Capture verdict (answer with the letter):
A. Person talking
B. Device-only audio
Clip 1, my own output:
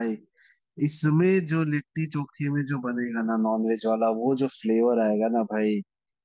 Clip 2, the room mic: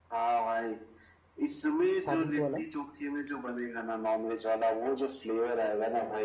A